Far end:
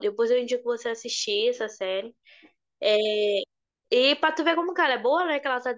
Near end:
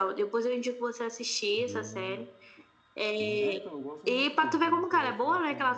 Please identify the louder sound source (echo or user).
echo